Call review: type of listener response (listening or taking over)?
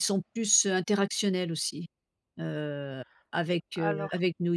listening